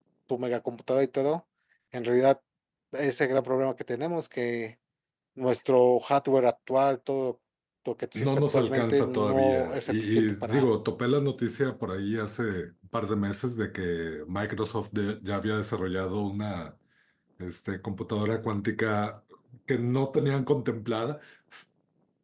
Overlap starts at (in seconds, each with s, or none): 8.2 s